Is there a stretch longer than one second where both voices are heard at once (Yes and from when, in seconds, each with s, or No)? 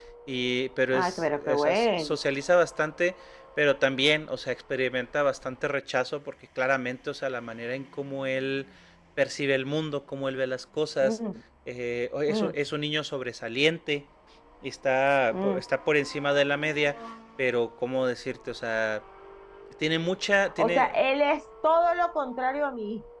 Yes, from 0.9 s